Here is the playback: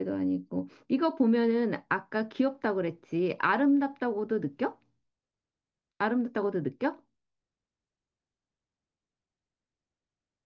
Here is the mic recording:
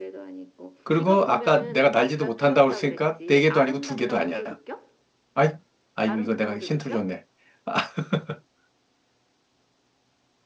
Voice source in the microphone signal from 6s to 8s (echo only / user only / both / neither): both